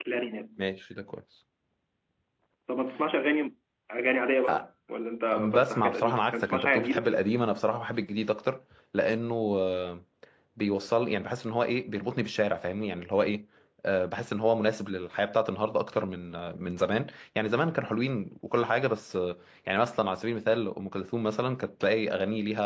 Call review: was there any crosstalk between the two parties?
Yes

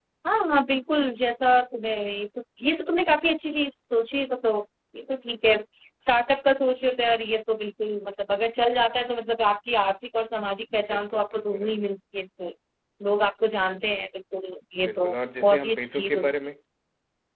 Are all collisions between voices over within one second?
No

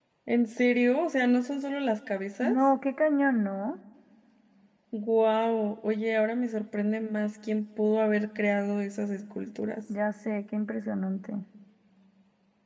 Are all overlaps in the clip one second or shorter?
Yes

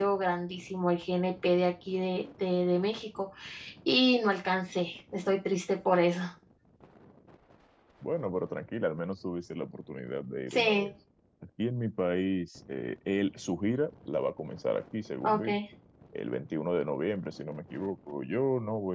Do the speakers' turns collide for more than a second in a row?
No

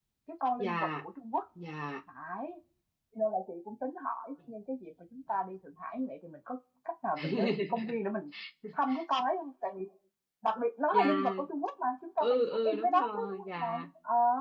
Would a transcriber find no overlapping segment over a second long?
No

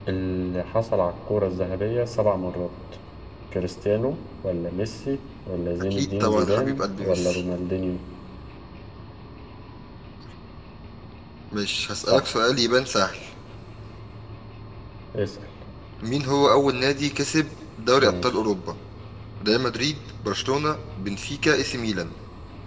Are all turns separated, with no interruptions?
No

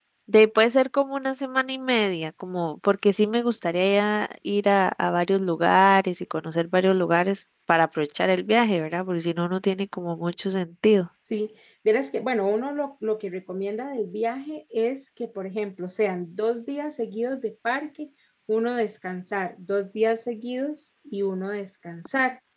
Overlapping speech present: No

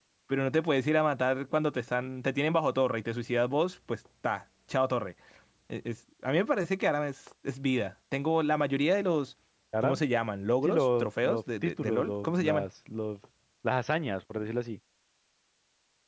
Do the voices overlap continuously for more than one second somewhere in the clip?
Yes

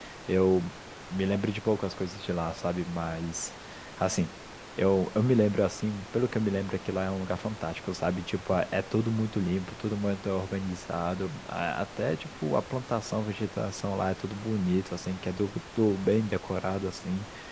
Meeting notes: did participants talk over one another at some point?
No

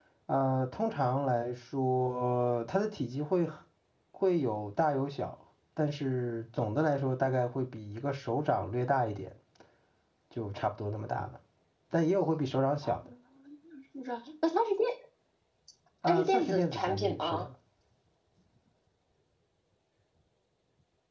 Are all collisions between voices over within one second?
No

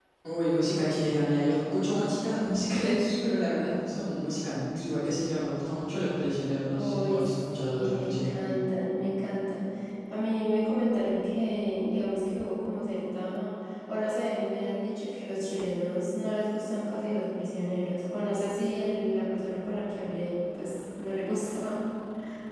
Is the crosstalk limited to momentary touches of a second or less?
No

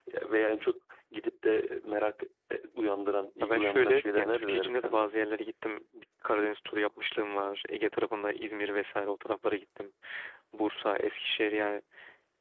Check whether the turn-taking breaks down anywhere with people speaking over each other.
Yes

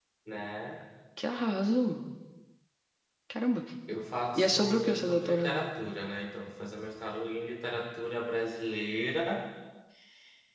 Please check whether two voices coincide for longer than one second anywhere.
Yes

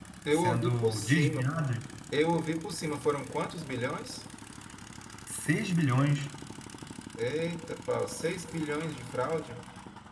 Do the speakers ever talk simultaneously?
Yes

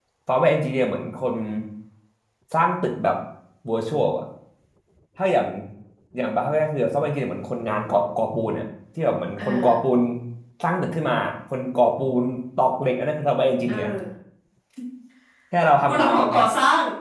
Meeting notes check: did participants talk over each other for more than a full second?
No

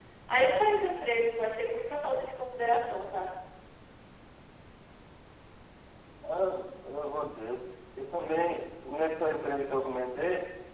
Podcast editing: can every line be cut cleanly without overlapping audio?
Yes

